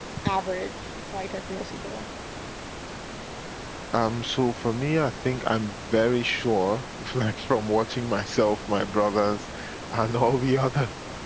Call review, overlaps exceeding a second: none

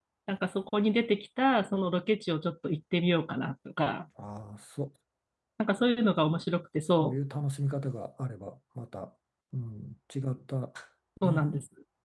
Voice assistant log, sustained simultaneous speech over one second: none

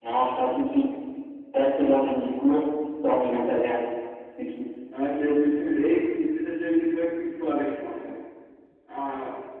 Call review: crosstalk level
none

